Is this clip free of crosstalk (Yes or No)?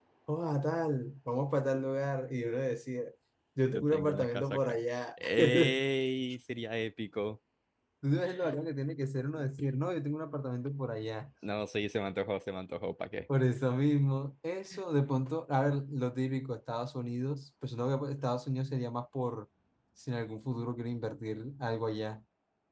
No